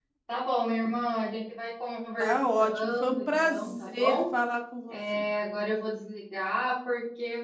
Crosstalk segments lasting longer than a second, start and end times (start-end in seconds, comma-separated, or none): 2.2-4.2